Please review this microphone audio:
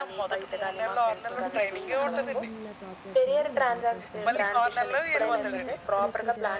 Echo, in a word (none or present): present